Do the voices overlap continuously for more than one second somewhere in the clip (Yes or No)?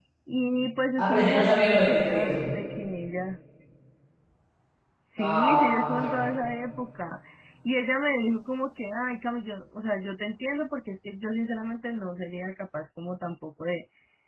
Yes